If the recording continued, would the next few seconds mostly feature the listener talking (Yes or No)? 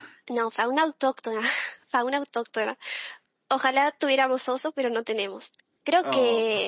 No